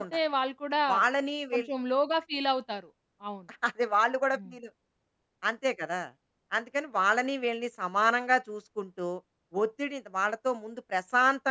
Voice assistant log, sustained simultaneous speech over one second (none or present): none